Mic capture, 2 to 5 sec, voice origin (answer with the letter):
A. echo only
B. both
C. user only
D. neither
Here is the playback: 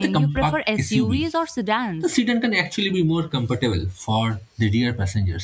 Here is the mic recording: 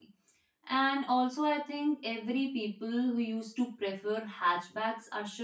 C